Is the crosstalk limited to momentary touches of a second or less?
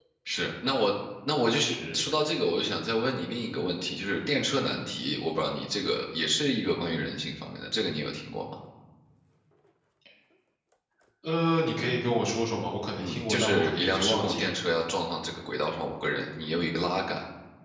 No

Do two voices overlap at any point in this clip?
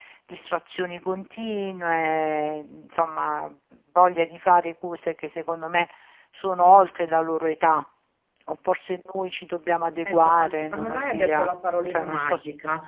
Yes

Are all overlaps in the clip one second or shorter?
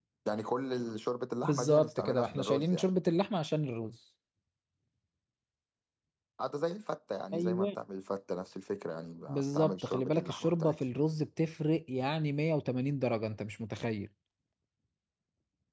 No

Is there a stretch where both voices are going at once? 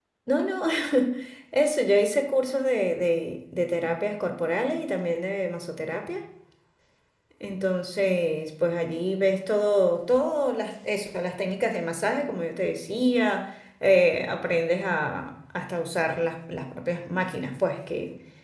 No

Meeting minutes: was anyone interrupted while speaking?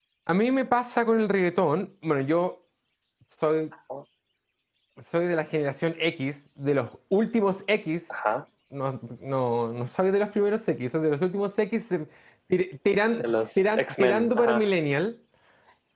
Yes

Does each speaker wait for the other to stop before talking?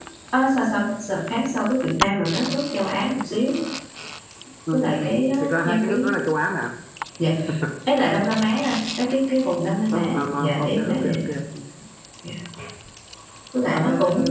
No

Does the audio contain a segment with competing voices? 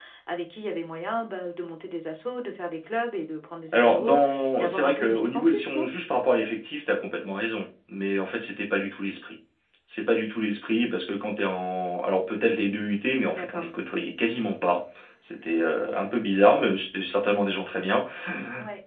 Yes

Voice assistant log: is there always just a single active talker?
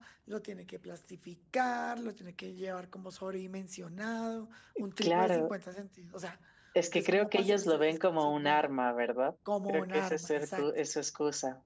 No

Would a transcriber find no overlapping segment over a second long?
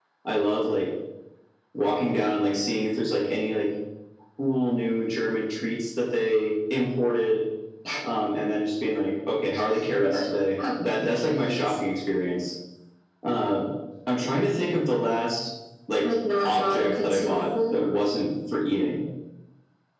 No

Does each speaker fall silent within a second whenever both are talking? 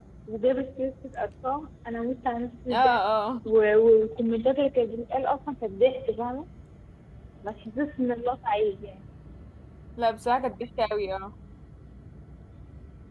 Yes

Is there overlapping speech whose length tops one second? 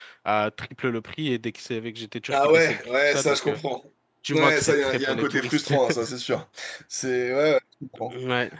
Yes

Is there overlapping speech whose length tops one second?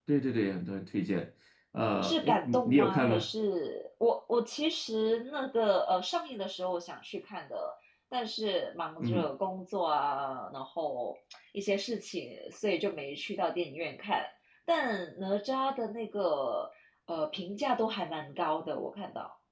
Yes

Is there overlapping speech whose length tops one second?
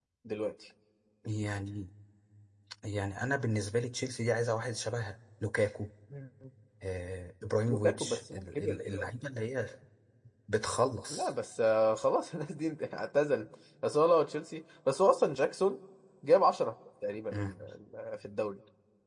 Yes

